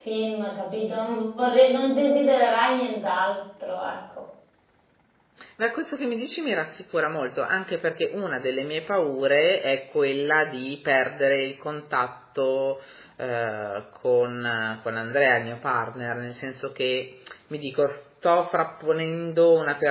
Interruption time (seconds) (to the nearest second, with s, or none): none